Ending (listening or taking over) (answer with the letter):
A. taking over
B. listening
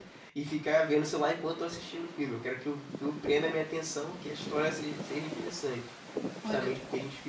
B